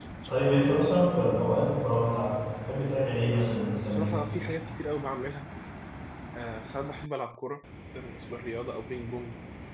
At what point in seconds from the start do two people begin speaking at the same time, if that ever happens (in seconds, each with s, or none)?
3.2 s